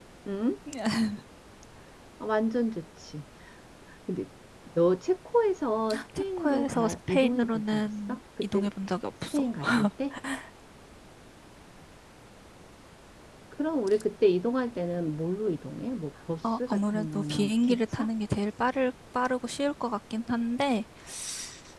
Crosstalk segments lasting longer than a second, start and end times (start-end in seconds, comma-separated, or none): 6.2-8.7, 16.7-18.1